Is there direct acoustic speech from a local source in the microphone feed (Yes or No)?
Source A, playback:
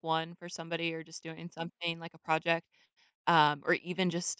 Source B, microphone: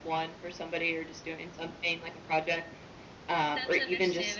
Yes